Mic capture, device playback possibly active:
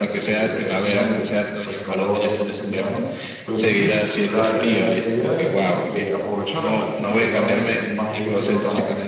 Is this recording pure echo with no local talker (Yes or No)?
No